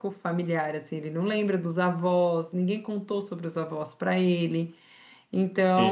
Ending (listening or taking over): listening